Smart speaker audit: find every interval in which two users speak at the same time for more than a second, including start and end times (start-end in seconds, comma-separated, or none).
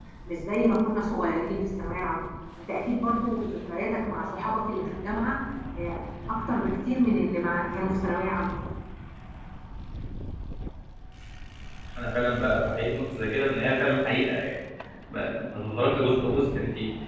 none